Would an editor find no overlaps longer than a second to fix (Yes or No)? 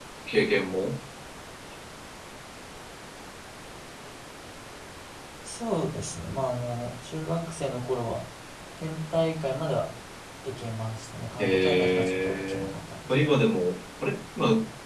No